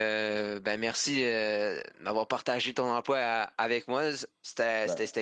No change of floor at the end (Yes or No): Yes